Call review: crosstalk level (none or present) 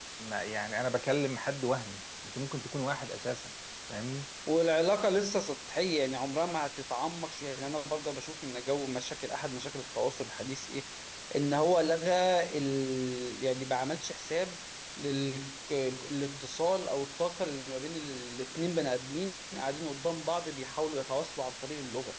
none